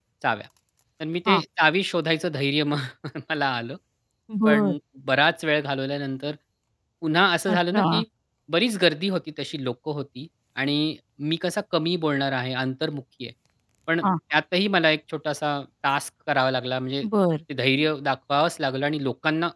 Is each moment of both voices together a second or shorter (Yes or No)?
Yes